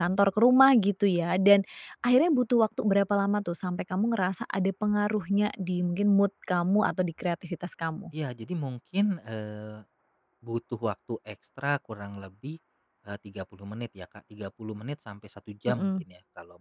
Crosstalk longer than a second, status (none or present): none